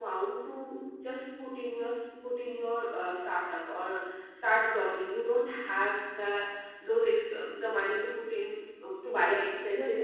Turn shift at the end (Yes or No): Yes